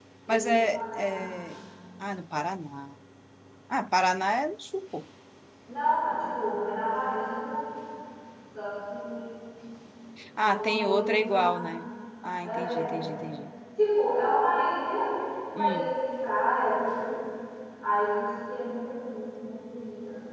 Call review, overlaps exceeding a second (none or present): present